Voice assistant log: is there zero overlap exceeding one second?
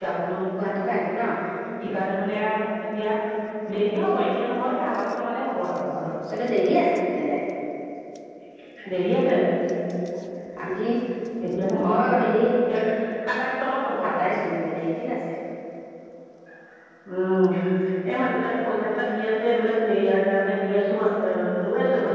Yes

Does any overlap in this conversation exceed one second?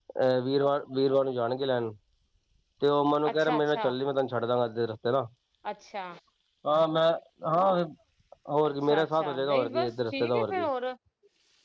Yes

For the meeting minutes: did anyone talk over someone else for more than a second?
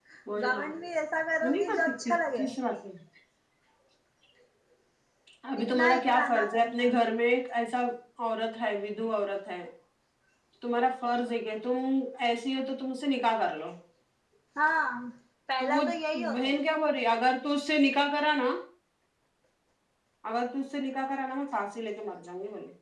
Yes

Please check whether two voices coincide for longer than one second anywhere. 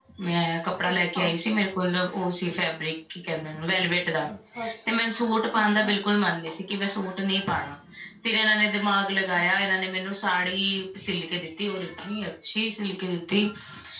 No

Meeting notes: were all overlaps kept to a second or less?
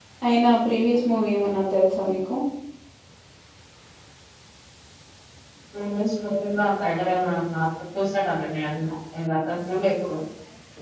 Yes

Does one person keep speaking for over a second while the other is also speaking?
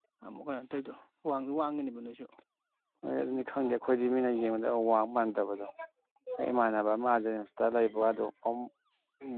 No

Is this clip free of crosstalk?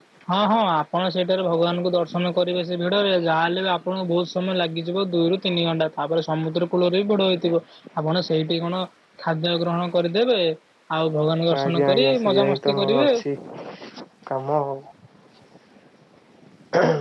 No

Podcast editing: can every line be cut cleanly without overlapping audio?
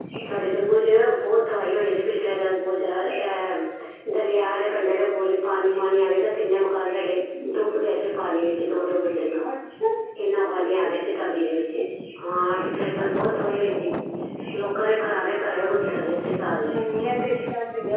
Yes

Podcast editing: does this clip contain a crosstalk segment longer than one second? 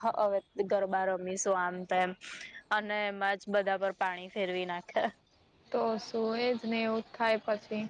No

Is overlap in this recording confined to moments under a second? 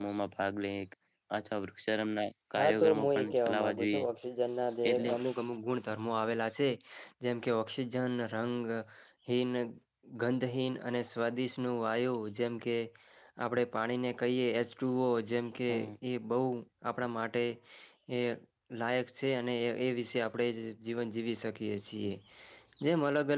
No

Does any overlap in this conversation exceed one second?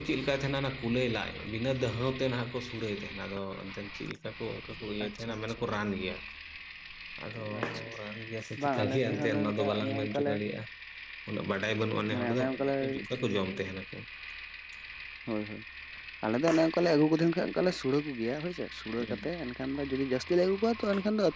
Yes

